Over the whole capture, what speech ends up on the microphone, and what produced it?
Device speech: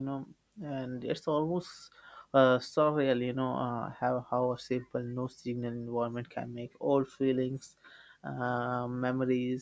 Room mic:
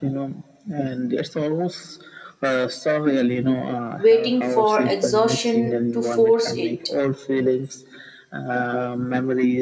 both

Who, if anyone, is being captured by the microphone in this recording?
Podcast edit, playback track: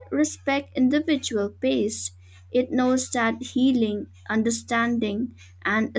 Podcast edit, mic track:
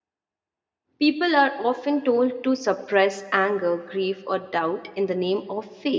user only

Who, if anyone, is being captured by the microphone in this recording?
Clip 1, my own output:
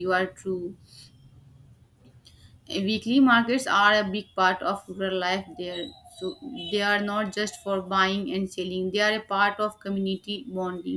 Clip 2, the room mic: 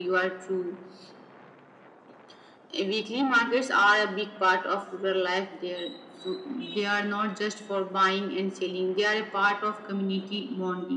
echo only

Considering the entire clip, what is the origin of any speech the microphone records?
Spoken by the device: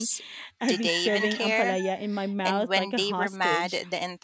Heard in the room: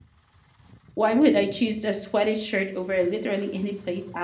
user only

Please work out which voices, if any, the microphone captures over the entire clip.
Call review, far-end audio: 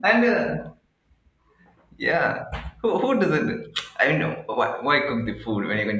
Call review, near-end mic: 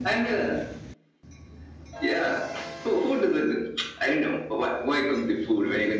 echo only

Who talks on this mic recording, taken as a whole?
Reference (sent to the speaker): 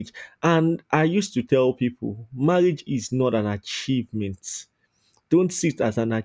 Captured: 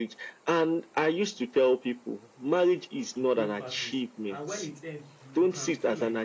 both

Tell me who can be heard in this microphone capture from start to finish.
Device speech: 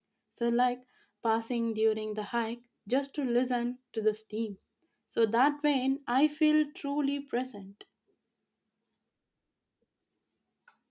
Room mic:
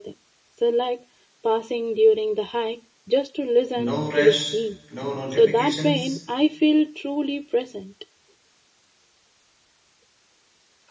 both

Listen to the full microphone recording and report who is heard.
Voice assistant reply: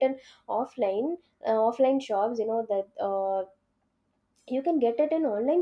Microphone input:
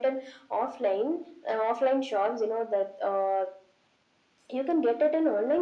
echo only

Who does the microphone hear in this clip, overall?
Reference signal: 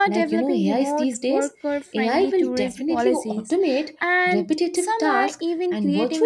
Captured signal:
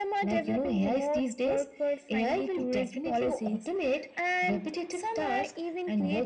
echo only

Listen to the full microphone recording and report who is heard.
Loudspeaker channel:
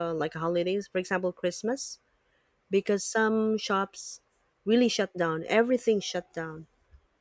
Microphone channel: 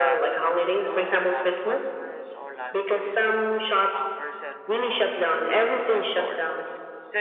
both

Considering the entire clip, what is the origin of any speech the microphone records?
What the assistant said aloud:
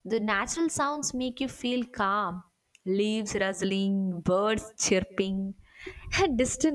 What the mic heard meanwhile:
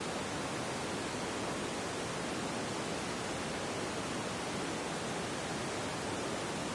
neither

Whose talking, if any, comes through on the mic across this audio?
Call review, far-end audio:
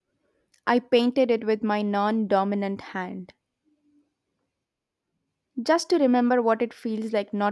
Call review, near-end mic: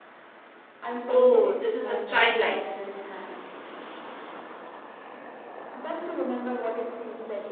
both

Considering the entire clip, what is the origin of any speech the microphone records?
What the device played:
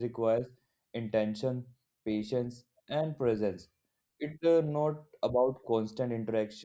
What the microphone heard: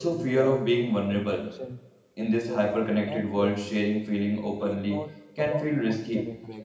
both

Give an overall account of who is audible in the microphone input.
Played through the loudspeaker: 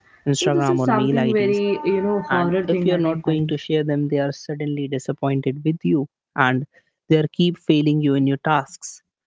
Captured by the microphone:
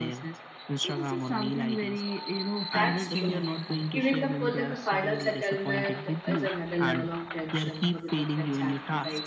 both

